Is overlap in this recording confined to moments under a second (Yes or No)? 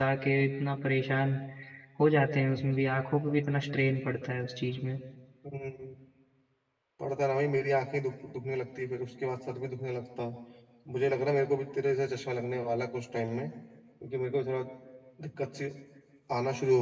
Yes